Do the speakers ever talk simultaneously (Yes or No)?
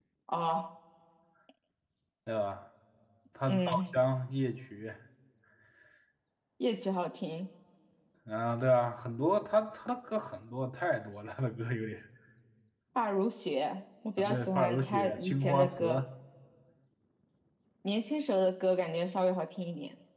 Yes